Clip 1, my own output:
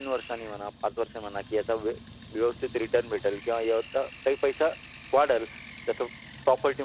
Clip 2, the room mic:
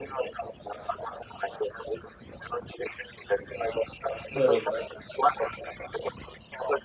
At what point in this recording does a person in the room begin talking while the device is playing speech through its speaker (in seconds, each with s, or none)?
4.4 s